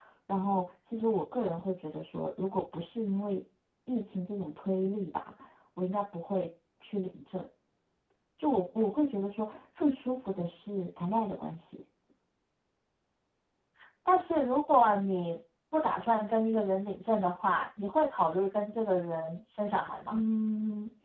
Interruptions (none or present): none